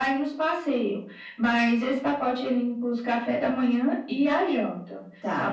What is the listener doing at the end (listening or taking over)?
taking over